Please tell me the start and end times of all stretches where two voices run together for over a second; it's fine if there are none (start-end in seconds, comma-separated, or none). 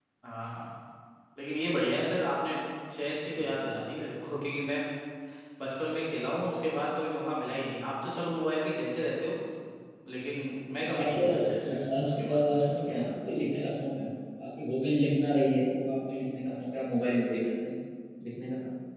11.7-13.1